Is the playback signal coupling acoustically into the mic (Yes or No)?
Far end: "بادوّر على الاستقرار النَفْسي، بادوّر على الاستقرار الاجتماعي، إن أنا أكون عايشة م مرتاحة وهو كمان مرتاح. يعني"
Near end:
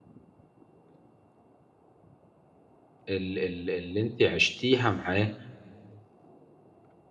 No